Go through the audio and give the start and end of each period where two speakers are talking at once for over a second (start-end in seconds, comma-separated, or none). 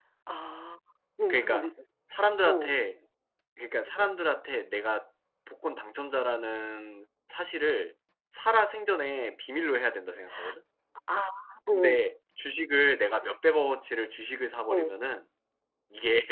none